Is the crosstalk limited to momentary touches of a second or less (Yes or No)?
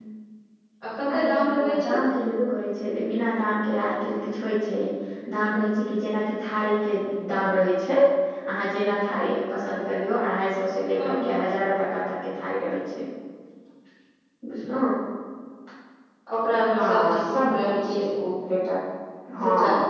No